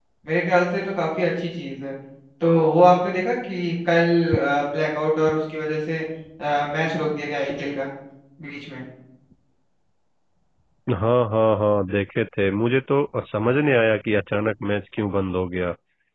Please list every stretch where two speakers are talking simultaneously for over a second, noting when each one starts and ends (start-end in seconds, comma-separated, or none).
none